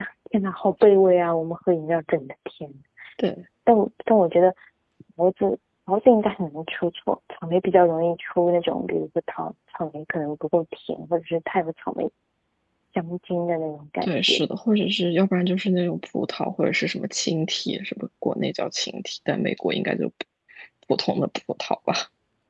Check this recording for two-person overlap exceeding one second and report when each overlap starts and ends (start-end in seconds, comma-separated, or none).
none